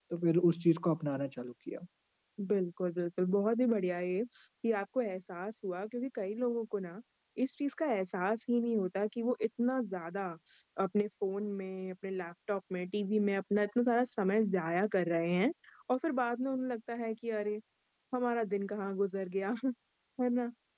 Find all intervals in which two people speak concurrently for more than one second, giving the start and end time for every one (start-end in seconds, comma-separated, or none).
none